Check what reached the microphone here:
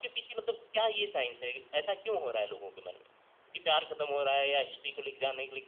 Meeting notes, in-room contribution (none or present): none